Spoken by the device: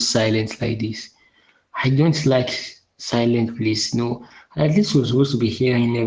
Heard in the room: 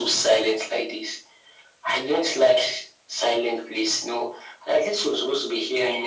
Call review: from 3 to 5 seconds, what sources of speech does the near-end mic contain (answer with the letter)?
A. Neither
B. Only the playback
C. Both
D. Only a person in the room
B